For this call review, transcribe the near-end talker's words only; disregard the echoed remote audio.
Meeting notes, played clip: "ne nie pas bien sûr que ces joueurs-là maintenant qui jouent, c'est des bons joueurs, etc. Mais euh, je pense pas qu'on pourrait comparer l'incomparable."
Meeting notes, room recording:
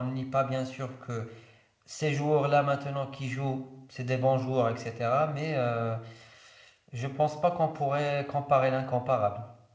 none

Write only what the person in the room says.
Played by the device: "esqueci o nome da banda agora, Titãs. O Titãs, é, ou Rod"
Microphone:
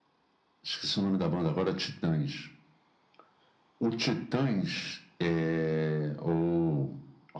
none

